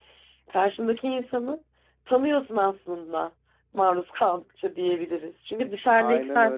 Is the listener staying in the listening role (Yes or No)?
Yes